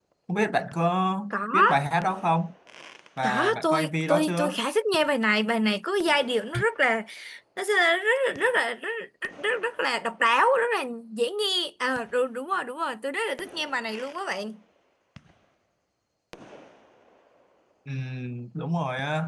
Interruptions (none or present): present